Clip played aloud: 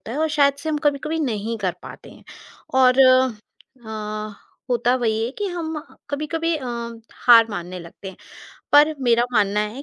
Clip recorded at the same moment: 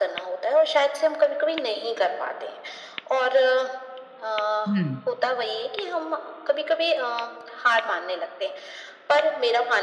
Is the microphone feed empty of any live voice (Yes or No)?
No